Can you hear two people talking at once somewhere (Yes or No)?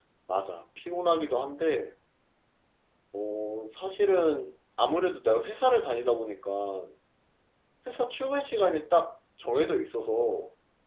No